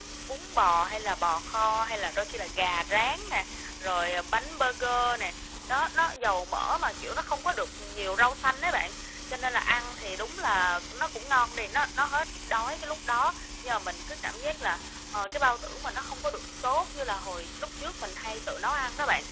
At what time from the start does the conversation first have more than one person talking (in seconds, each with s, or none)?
none